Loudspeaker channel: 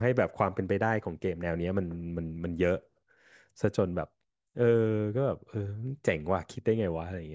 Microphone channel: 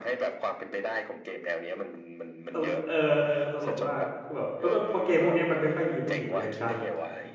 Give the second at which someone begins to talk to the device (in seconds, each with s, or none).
2.5 s